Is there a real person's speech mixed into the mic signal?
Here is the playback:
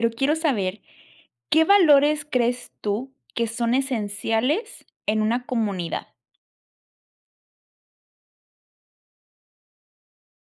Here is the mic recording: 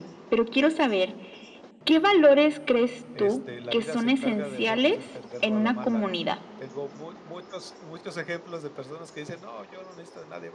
Yes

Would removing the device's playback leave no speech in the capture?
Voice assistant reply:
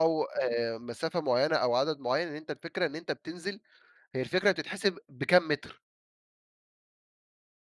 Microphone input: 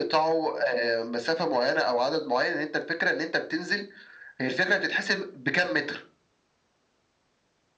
Yes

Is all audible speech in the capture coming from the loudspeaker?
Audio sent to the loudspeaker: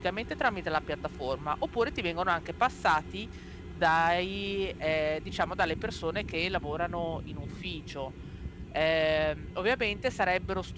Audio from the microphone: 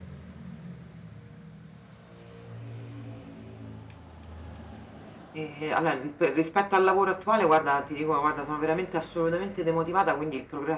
No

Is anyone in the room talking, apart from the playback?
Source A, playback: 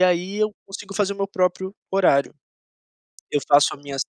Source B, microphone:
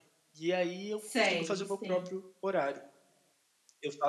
Yes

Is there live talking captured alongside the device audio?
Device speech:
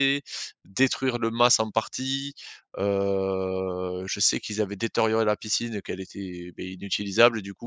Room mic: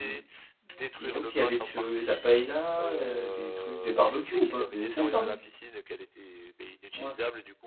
Yes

